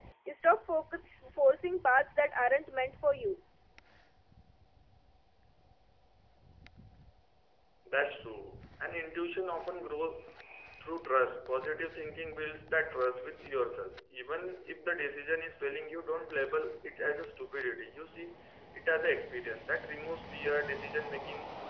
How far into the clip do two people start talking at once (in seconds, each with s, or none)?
none